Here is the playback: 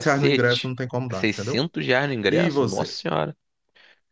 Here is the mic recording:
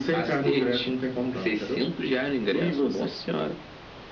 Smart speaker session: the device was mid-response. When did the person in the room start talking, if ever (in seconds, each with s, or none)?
none